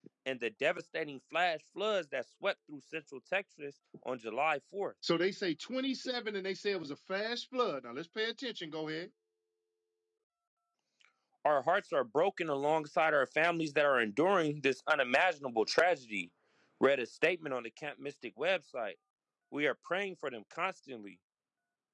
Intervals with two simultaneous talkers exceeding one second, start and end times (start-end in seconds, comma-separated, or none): none